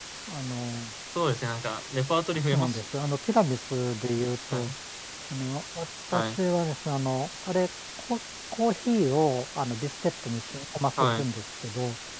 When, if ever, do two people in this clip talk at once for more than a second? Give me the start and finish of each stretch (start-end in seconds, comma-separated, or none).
none